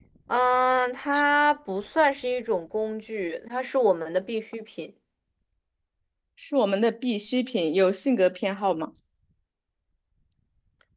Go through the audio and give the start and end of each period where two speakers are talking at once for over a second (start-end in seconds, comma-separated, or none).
none